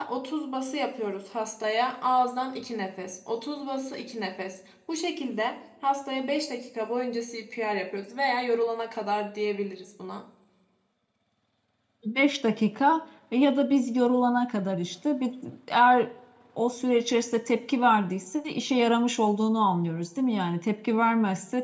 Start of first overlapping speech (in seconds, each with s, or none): none